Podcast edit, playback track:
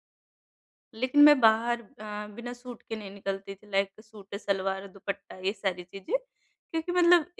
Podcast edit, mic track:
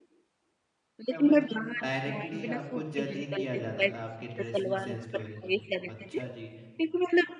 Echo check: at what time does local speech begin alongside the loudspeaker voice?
1.1 s

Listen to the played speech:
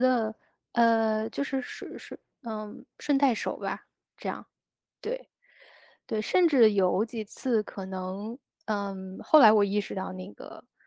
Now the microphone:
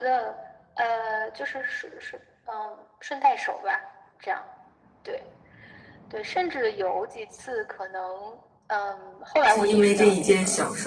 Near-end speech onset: 9.4 s

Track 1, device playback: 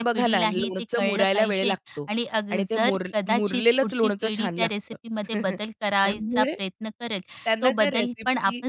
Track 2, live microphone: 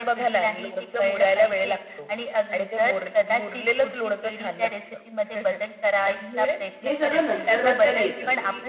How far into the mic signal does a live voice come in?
6.8 s

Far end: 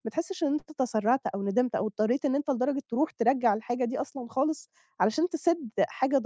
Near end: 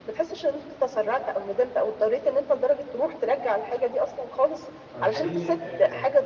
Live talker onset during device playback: 4.8 s

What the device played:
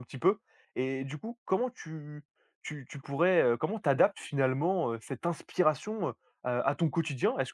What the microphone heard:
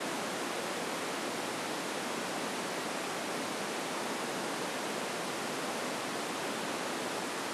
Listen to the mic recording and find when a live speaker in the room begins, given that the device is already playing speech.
none

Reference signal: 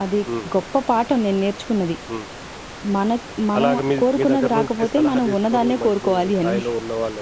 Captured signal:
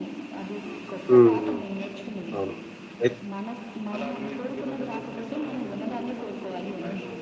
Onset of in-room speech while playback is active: 1.1 s

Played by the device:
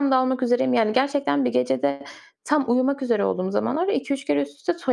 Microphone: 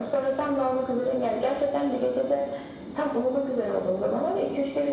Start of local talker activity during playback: none

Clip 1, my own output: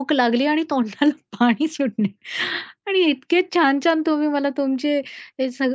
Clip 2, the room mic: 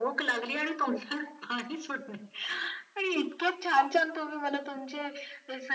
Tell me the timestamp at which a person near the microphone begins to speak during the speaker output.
none

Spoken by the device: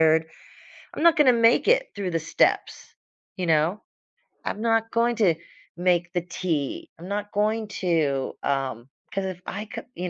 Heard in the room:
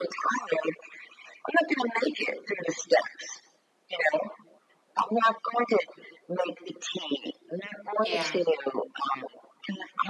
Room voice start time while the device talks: 8.0 s

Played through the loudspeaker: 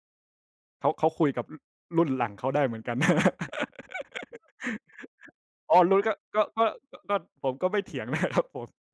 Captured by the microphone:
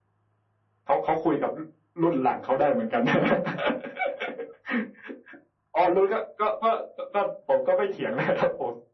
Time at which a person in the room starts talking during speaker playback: none

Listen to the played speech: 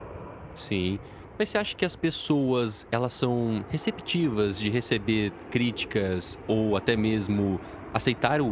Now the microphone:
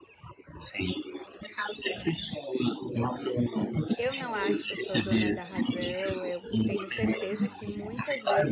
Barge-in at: 4.0 s

